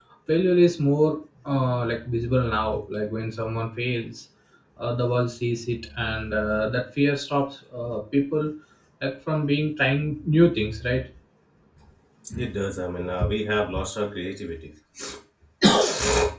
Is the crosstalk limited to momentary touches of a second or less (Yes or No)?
Yes